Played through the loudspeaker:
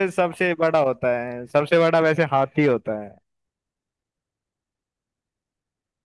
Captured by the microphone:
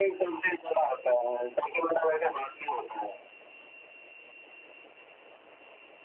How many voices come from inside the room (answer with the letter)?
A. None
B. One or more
A